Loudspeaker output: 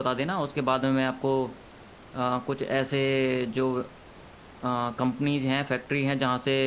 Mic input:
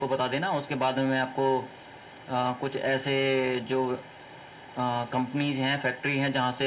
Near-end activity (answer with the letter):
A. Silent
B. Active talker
A